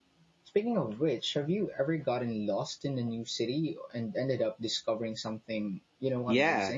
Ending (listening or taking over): taking over